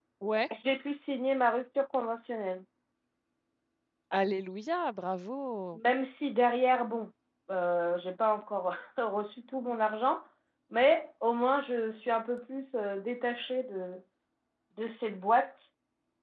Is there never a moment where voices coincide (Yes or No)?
Yes